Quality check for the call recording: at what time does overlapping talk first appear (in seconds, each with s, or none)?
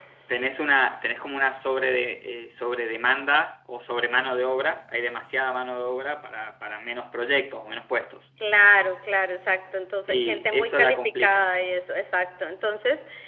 10.1 s